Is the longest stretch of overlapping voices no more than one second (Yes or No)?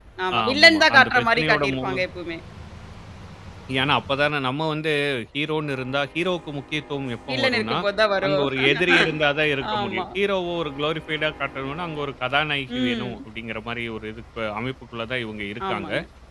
No